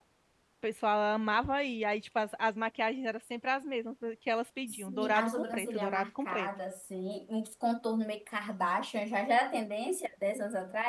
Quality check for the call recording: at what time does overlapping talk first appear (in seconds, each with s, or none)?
4.7 s